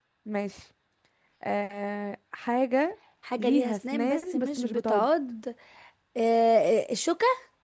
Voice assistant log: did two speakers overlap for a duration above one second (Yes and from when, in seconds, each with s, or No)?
Yes, from 3.4 s